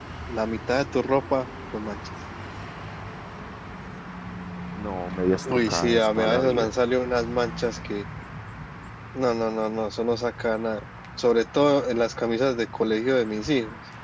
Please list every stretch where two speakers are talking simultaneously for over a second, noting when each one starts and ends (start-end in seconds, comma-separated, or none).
5.5-6.7